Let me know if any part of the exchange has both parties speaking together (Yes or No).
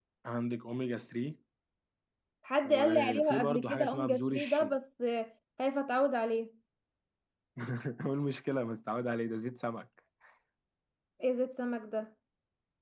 Yes